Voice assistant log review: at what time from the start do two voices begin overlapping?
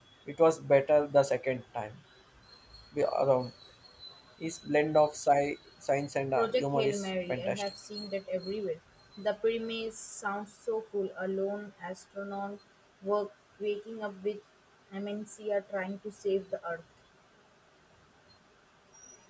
6.4 s

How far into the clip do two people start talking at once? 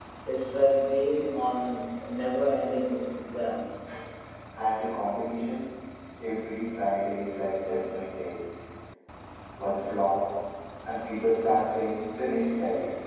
none

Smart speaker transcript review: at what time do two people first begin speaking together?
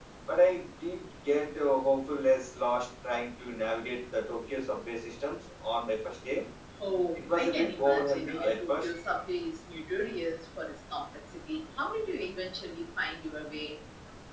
7.2 s

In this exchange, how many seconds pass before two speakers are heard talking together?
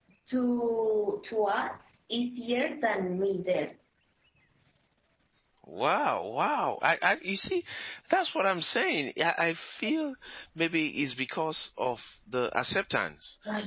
none

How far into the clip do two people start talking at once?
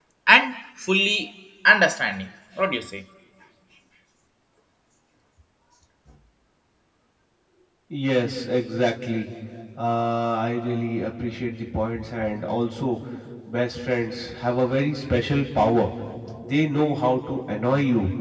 none

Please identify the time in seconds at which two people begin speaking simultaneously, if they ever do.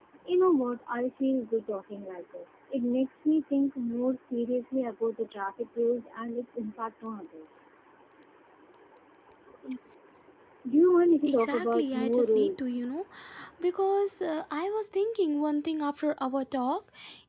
11.2 s

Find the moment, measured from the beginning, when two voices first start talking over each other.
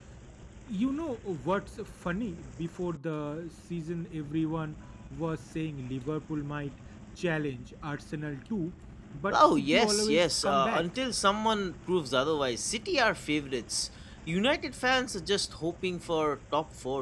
9.3 s

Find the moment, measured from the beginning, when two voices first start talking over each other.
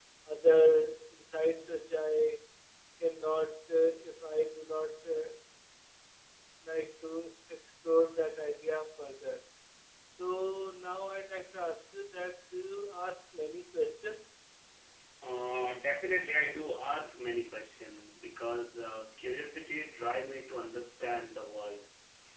none

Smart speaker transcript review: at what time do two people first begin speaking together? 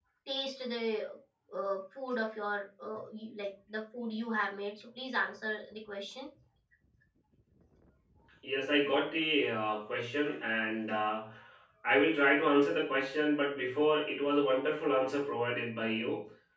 none

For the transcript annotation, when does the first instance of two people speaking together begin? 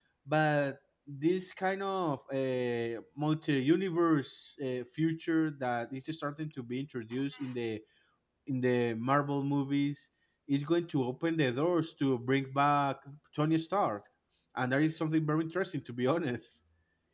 none

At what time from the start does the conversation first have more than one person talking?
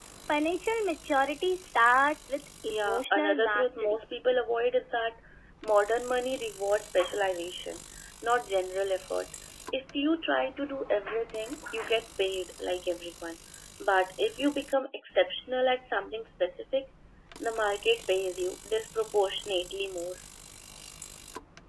2.7 s

